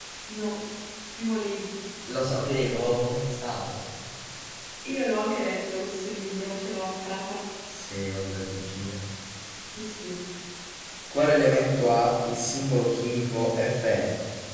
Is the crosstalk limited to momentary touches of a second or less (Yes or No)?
Yes